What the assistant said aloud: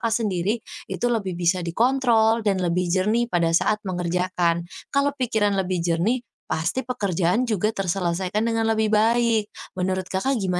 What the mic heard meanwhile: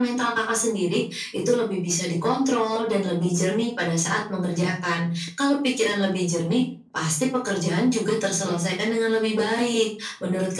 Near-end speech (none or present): none